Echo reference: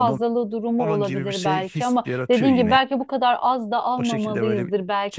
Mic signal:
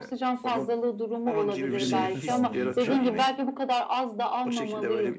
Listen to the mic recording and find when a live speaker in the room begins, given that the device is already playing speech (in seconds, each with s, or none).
1.7 s